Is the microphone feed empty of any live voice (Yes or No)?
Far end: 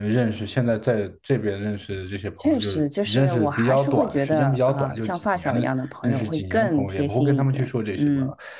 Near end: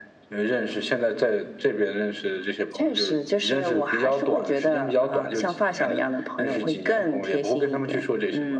Yes